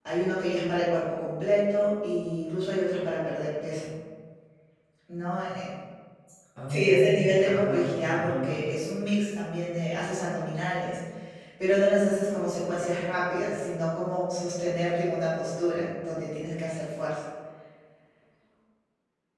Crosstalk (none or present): present